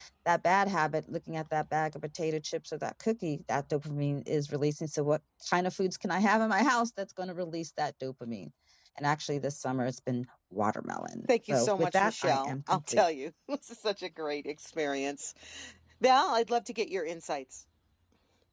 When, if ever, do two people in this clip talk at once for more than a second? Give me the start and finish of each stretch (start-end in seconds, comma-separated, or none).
11.5-13.0